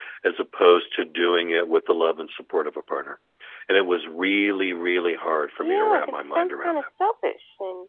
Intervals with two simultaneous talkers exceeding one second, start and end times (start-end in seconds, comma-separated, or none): 5.6-6.9